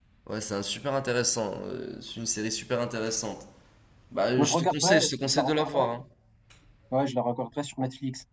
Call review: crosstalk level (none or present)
present